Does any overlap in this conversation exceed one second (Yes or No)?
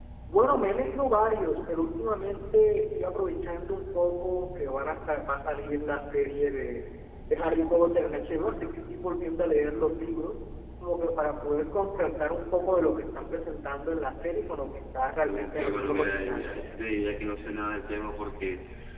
Yes